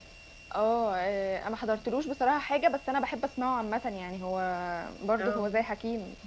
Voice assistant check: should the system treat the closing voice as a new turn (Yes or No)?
No